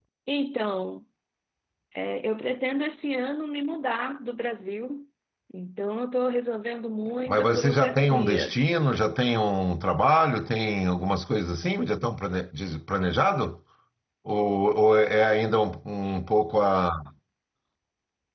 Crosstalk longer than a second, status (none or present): present